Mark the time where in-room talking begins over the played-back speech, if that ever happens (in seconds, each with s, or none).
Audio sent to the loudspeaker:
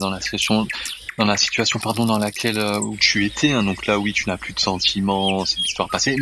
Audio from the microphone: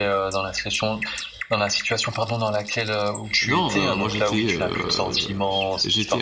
3.4 s